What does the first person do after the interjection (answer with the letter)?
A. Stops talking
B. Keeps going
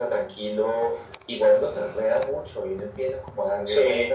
B